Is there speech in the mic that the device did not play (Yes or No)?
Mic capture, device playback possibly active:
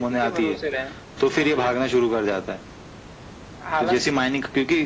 No